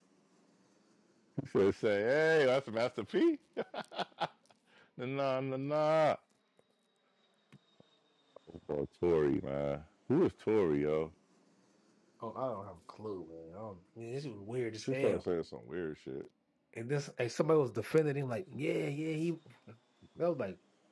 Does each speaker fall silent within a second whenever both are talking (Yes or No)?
Yes